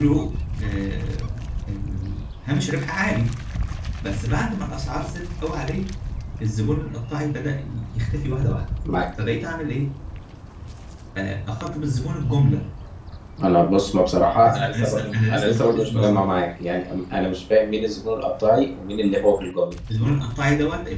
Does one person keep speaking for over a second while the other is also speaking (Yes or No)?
Yes